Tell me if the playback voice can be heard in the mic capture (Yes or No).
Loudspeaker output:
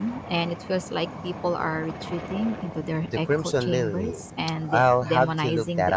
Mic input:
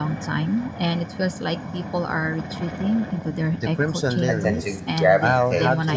Yes